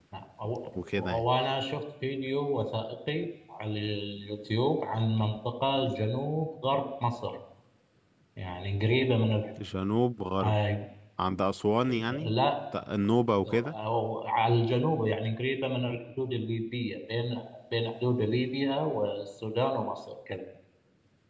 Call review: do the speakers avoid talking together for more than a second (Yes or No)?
Yes